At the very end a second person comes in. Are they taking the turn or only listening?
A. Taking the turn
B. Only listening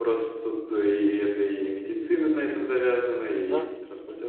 B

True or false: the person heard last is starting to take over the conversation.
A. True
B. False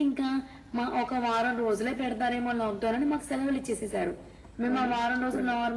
B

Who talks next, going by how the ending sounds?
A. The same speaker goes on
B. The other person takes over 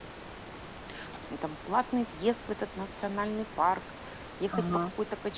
A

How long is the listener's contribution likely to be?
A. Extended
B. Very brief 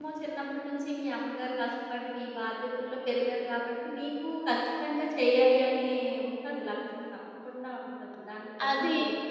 A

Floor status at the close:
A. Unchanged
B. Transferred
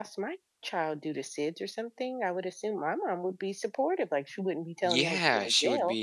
B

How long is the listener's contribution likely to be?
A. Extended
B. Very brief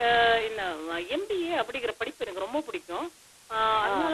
B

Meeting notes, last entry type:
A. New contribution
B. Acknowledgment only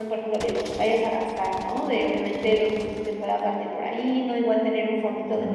B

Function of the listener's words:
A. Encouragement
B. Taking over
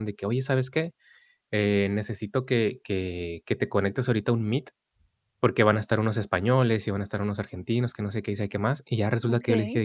A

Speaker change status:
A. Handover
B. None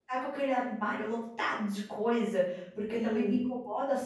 B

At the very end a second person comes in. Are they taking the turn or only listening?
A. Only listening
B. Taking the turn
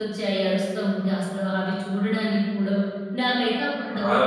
A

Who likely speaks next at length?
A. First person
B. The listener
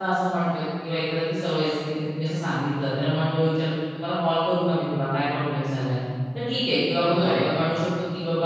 A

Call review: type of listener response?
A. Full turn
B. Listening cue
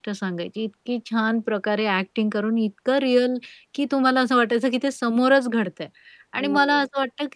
B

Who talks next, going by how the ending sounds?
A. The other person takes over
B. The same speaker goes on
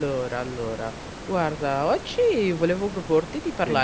B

